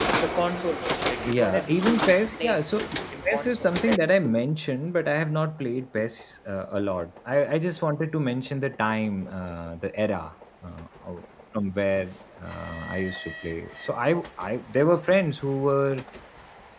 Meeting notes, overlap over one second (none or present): present